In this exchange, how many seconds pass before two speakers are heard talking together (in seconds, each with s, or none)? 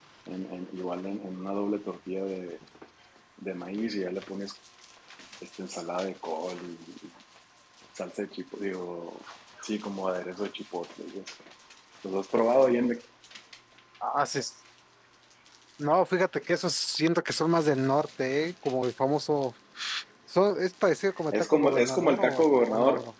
21.1 s